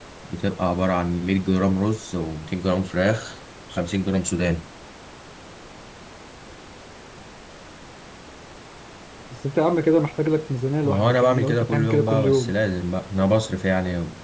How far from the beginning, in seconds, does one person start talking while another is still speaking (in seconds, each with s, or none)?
10.8 s